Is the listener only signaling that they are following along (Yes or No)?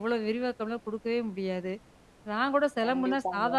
Yes